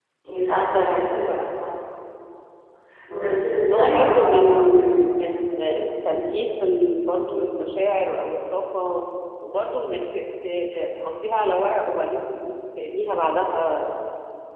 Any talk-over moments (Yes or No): Yes